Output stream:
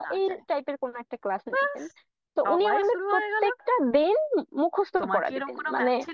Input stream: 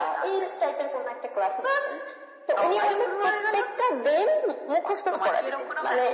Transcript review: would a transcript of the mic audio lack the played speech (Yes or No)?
No